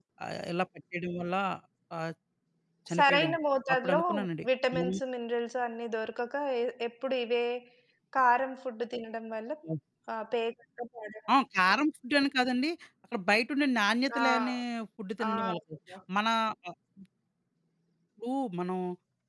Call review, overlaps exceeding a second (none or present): none